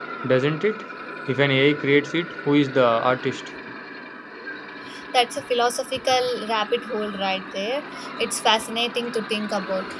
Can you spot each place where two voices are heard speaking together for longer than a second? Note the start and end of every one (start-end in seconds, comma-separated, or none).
none